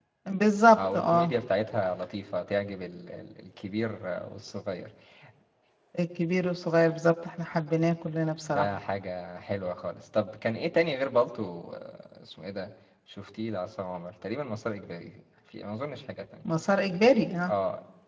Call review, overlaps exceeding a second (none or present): none